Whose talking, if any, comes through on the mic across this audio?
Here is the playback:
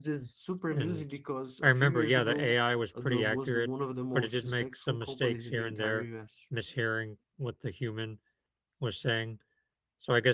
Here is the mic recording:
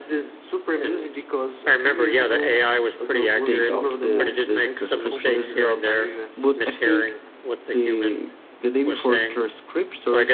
both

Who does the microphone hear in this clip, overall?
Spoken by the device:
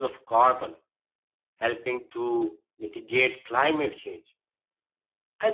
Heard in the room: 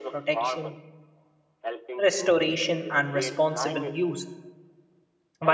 both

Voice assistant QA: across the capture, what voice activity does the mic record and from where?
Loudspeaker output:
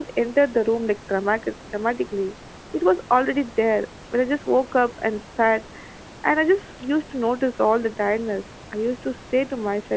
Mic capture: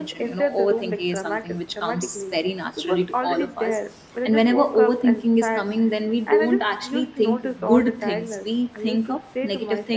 both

